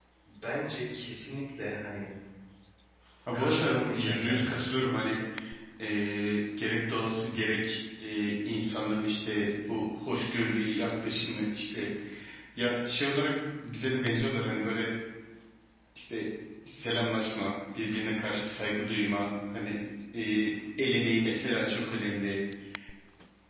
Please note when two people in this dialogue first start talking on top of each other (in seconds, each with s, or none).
3.3 s